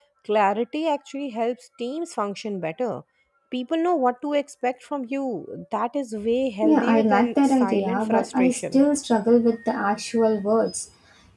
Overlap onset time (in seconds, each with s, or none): 6.6 s